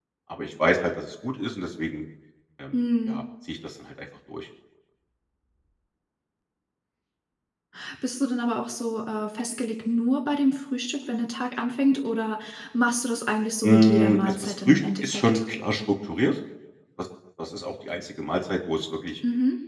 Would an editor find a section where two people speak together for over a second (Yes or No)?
Yes